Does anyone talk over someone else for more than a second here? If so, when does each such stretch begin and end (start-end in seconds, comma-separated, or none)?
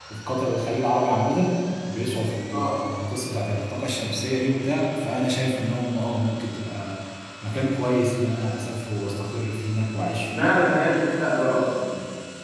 none